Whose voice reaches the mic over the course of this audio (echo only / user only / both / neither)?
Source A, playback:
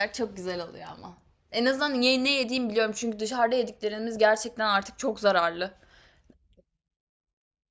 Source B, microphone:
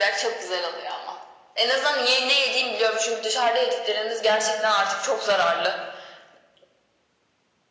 echo only